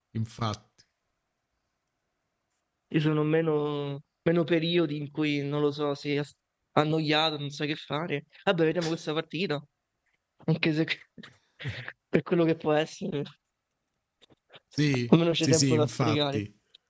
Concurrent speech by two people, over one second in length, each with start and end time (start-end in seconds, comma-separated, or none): 15.1-16.4